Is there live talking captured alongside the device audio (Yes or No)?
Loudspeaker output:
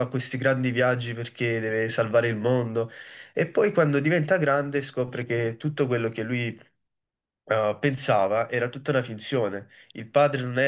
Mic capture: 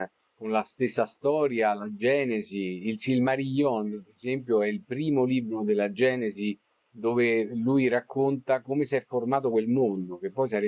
Yes